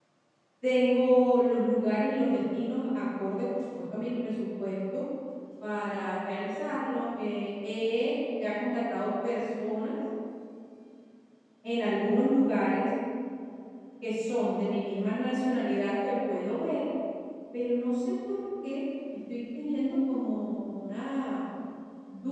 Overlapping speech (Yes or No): No